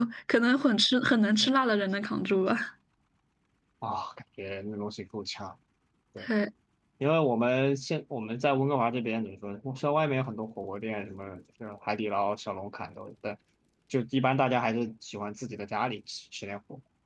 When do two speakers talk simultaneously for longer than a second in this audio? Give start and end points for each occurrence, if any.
none

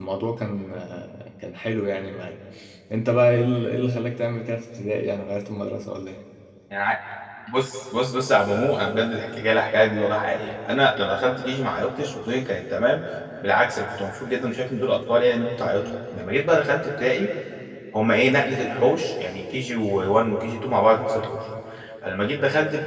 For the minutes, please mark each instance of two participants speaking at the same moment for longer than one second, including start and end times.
none

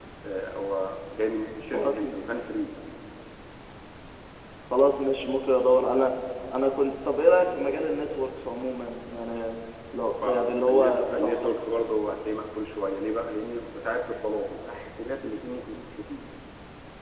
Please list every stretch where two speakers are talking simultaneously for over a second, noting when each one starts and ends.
10.2-11.5

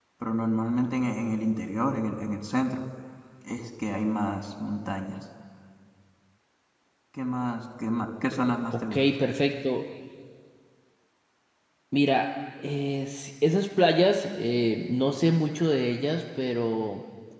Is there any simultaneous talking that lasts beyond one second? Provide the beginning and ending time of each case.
none

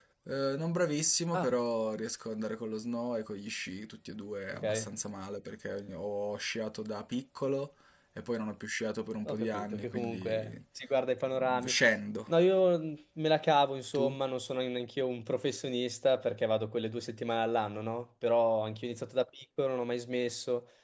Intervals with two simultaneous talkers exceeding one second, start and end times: 9.3-10.6

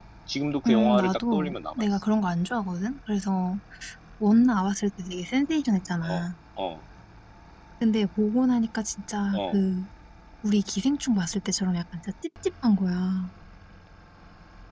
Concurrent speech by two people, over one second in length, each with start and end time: 0.7-2.0

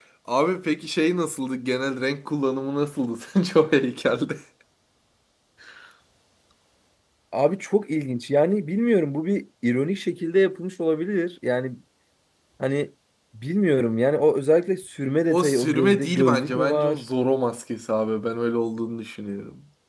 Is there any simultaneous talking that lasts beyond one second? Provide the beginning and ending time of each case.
15.3-17.0

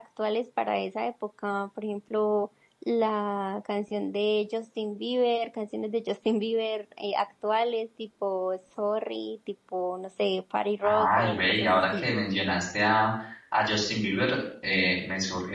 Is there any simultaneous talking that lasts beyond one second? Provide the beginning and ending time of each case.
10.8-12.0

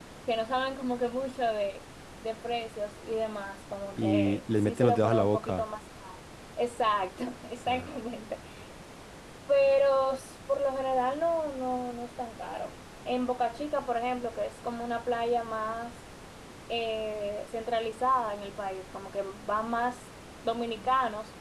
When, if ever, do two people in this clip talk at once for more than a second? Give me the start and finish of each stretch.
4.0-5.7

